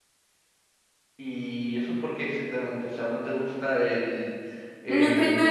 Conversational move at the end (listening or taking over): taking over